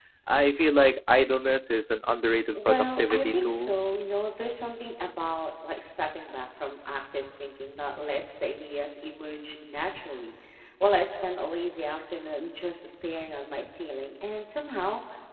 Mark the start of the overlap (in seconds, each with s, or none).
2.5 s